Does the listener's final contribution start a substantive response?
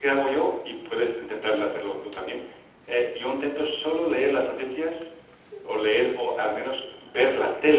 No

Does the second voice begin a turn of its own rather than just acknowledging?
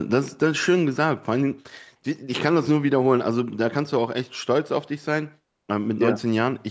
No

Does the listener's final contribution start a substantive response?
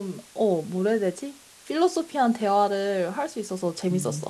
Yes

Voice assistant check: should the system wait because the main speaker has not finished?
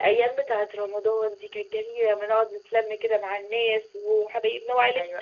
No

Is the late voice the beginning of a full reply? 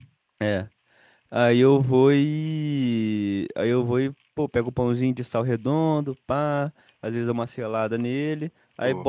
No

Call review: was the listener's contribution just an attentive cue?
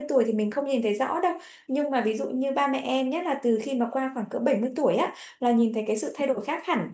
Yes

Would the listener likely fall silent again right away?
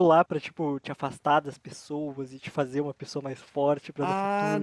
No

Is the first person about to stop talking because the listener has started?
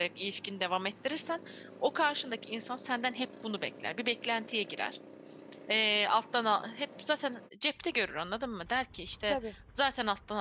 No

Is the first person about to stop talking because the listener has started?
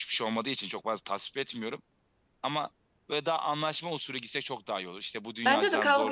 Yes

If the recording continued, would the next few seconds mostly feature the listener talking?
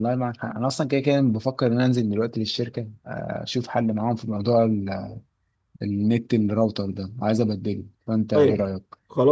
Yes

